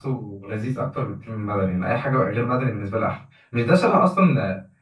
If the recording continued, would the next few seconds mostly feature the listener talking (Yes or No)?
No